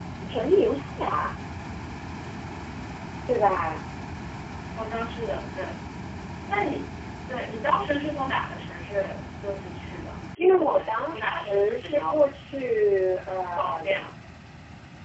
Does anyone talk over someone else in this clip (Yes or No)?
Yes